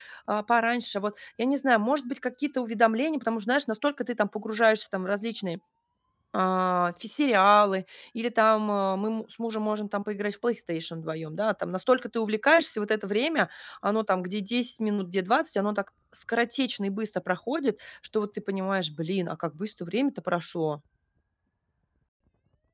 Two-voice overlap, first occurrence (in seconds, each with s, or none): none